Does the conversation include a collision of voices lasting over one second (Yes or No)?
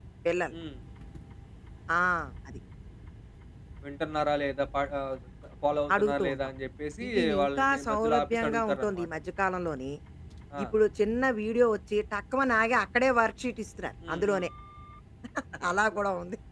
Yes